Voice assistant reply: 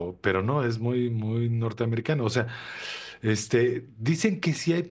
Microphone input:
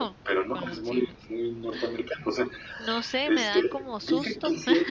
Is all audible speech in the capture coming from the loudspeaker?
No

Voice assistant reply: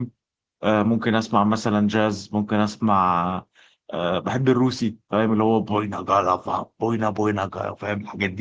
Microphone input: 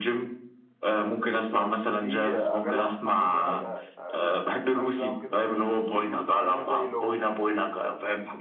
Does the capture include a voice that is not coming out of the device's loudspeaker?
Yes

